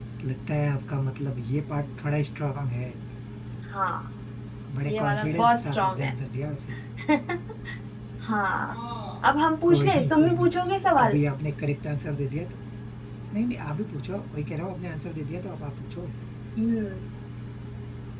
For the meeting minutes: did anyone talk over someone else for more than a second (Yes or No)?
Yes